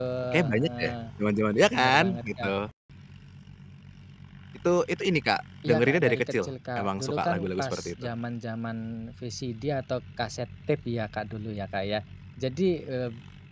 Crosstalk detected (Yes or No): Yes